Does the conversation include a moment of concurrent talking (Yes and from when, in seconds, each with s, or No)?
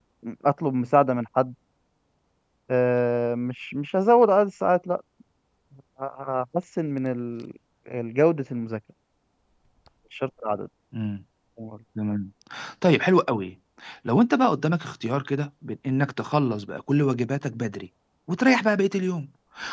No